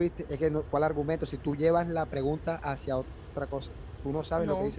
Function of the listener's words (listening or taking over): listening